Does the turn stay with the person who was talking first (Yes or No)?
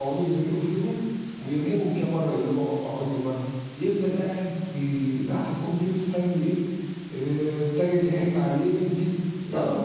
No